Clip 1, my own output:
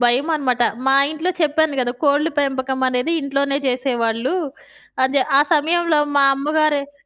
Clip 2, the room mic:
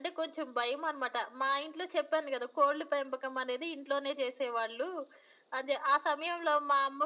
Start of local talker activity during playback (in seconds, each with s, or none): none